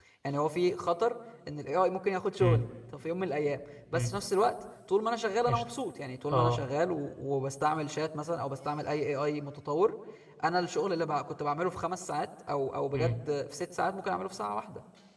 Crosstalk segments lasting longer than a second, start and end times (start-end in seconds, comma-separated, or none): none